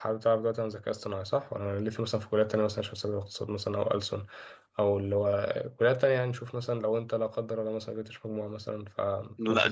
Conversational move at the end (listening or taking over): taking over